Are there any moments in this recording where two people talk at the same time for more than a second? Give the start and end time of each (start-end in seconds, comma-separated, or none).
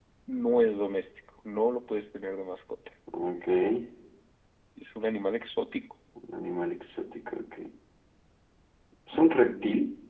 none